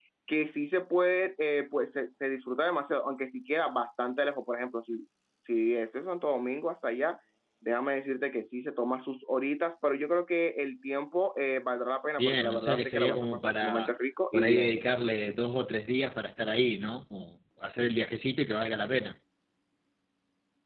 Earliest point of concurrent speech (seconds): 12.2 s

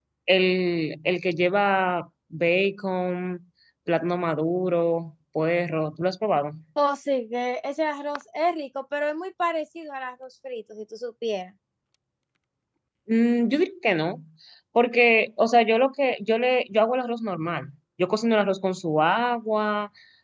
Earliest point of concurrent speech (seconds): none

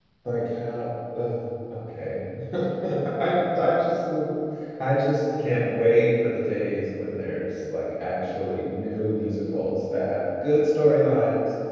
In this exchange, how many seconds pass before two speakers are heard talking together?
none

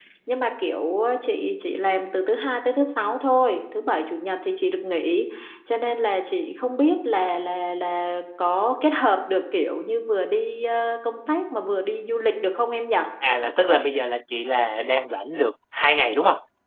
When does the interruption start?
none

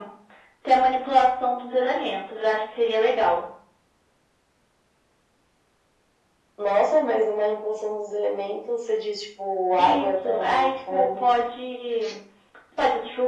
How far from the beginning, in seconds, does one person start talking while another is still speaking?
9.8 s

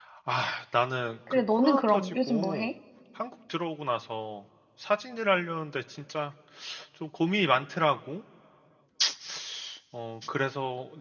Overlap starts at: 1.3 s

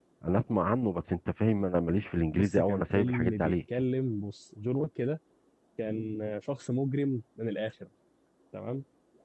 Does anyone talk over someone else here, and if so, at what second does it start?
2.3 s

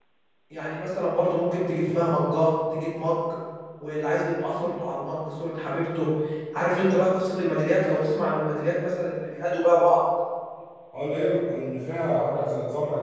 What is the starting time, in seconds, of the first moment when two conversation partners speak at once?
none

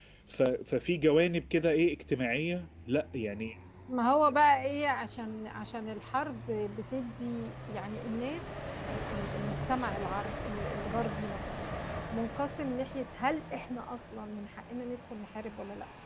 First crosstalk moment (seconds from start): none

